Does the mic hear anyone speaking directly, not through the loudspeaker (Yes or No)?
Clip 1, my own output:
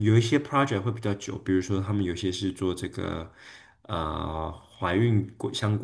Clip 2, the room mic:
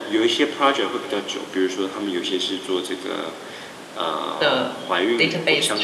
Yes